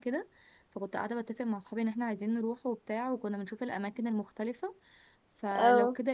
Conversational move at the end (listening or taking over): listening